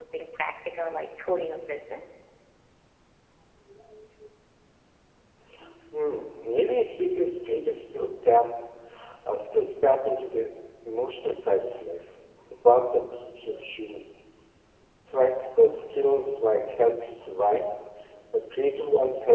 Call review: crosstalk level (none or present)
none